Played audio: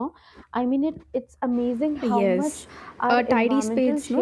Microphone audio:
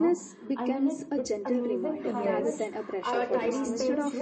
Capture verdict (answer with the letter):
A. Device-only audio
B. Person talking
B